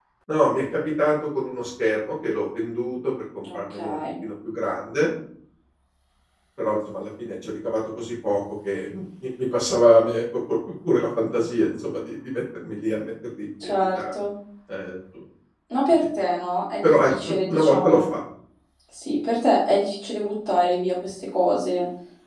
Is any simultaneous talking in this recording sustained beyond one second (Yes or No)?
Yes